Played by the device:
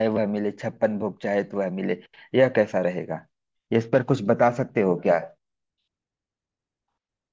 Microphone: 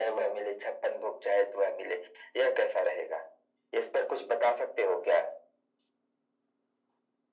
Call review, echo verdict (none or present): present